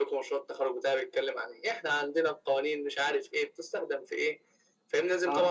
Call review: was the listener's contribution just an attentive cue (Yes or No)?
Yes